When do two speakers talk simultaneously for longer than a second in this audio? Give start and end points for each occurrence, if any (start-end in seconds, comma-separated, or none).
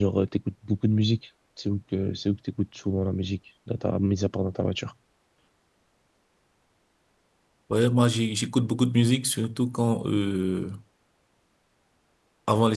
none